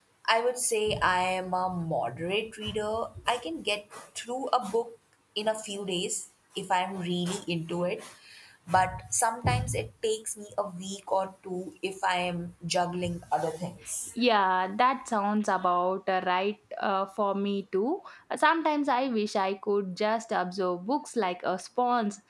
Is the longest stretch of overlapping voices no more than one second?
Yes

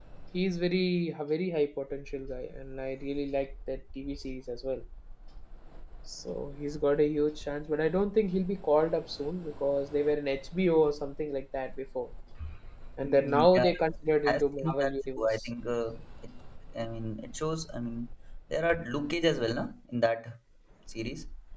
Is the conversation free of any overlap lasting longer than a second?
No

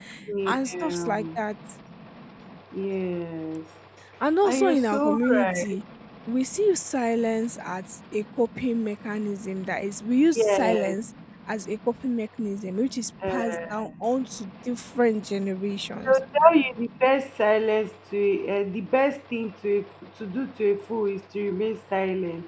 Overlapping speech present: Yes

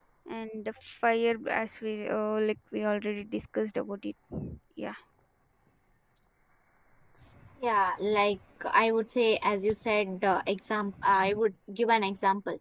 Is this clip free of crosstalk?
Yes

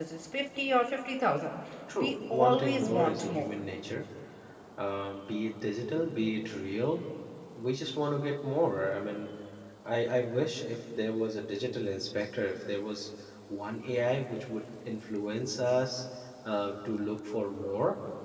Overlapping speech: Yes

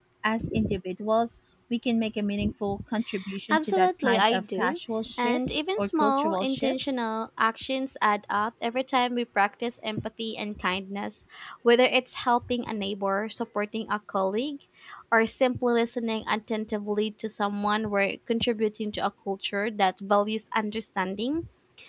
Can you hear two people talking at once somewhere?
Yes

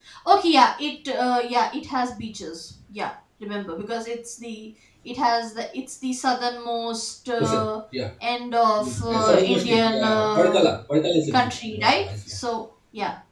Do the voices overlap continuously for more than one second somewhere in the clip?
Yes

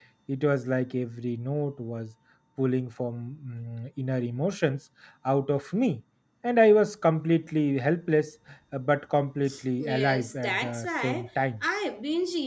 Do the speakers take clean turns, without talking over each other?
No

